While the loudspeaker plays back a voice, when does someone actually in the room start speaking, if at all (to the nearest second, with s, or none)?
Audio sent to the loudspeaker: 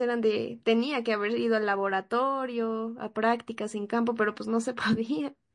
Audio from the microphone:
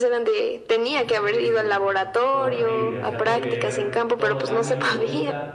1 s